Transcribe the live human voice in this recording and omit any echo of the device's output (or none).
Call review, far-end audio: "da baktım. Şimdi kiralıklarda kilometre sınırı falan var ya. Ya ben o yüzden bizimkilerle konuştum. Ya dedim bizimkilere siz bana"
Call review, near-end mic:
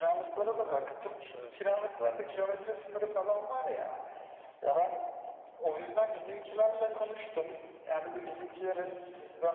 evet, evet.